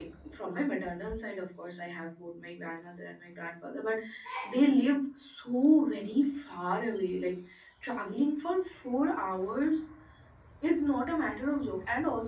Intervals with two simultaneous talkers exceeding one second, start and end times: none

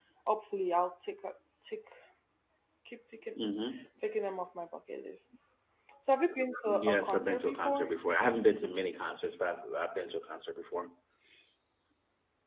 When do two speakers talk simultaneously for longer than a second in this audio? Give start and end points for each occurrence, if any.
6.7-7.9

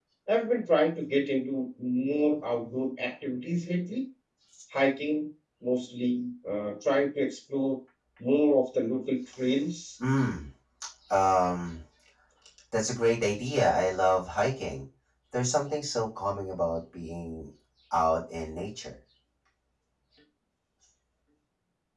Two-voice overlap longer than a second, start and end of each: none

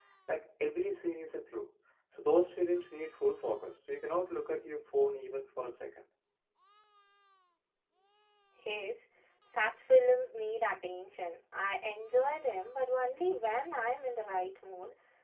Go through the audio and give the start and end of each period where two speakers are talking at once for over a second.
none

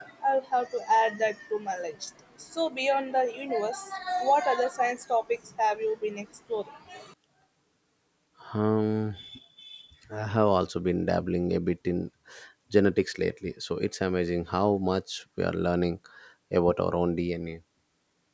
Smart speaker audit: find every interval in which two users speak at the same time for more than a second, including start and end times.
none

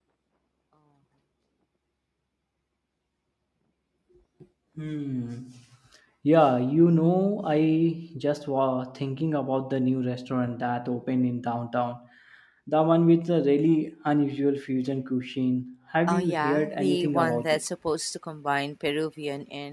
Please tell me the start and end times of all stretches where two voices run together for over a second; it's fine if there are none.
16.1-17.6

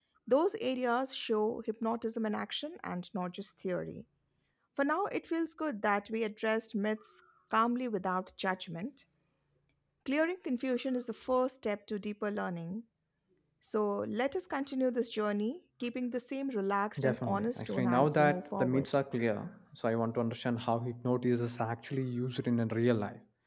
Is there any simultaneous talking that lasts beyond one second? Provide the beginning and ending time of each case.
17.0-18.9

